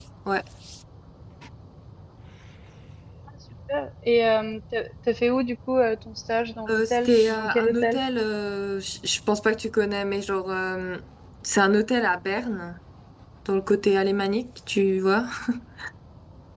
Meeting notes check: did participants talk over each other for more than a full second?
Yes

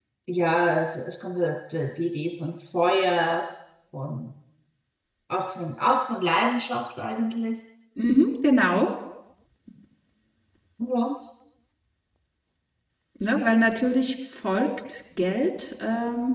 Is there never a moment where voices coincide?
Yes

